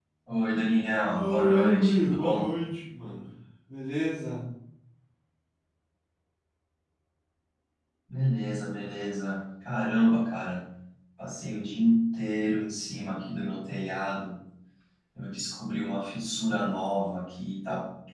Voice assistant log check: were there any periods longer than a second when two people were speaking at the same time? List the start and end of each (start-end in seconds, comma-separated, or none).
1.1-2.5